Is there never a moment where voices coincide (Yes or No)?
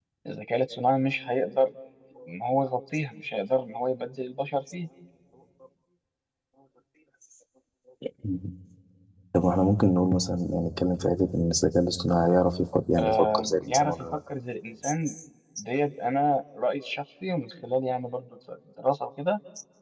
No